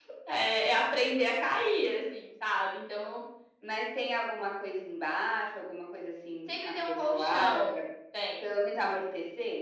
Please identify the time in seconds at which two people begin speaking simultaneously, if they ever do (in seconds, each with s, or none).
6.5 s